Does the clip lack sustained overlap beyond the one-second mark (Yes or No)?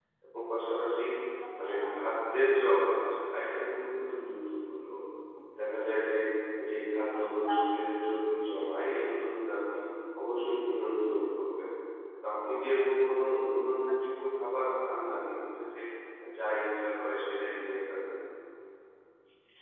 Yes